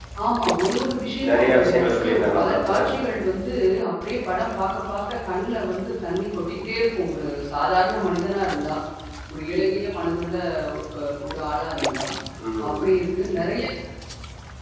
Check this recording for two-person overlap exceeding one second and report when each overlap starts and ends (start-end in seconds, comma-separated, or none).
1.3-2.8